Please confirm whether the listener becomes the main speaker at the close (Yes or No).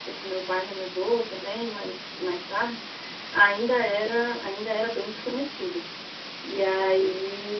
Yes